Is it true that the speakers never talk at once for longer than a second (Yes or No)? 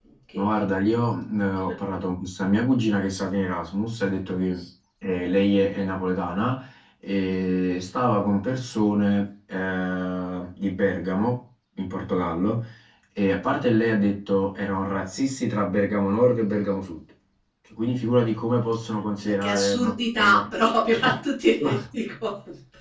No